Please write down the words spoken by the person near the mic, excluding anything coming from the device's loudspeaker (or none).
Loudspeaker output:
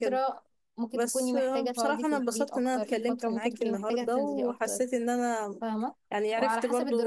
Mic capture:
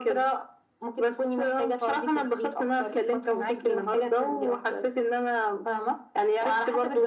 none